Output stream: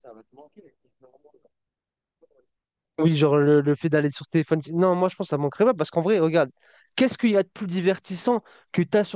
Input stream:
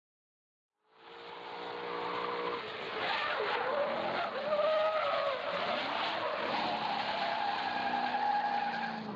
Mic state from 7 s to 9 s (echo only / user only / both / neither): neither